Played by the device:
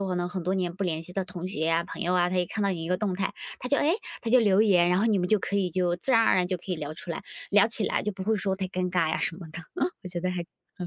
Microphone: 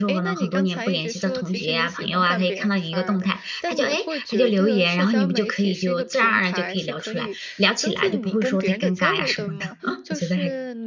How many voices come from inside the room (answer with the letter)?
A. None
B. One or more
B